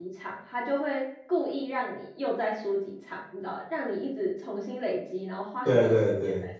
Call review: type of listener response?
taking over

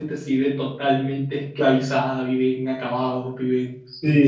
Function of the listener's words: taking over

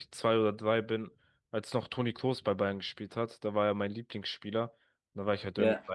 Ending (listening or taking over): listening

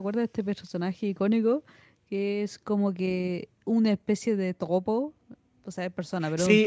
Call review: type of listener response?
taking over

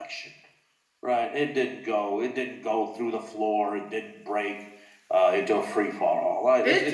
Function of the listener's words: taking over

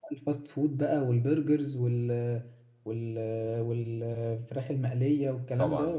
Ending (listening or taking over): taking over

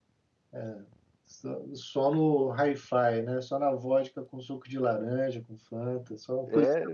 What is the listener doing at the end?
taking over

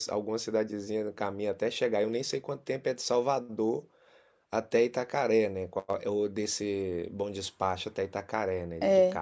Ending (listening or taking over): taking over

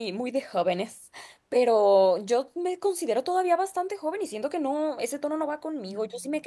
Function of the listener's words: listening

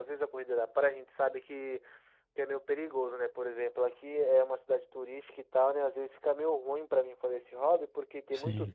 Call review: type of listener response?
listening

